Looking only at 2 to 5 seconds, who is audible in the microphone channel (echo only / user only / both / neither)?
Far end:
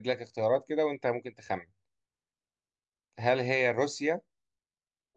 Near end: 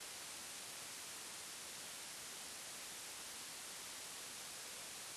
neither